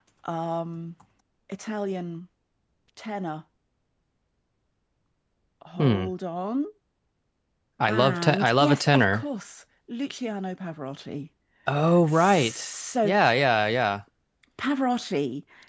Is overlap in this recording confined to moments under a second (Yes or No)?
No